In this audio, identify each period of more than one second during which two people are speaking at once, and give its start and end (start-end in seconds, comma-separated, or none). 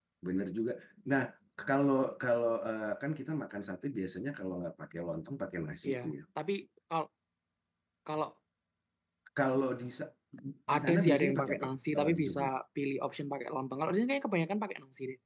10.7-12.4